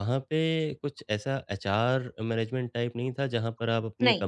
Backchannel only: Yes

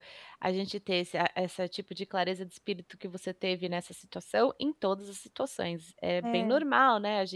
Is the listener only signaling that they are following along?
Yes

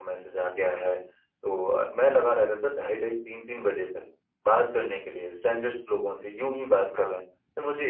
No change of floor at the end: Yes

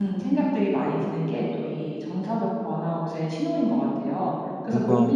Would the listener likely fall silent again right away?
Yes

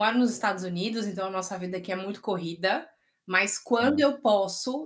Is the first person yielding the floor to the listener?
No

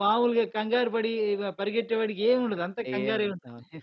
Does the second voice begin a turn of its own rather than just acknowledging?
Yes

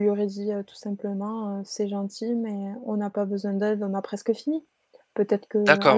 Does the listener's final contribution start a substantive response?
No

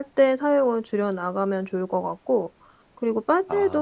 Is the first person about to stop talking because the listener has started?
No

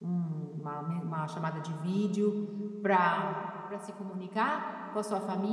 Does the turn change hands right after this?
No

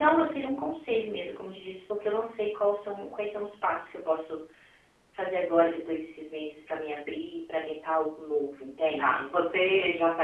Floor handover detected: Yes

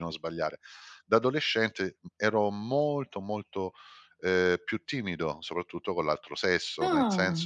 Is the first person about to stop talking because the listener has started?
No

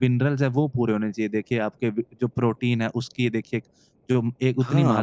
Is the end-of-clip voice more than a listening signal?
Yes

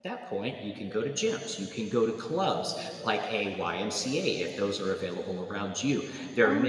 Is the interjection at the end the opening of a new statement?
No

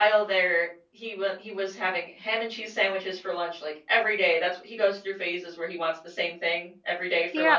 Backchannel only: No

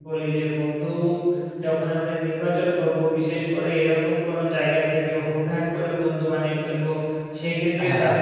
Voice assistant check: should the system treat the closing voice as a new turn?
No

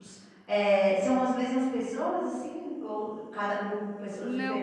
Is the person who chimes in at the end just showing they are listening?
No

